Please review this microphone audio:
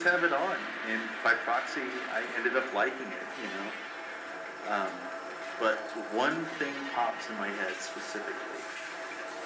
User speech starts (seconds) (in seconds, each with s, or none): none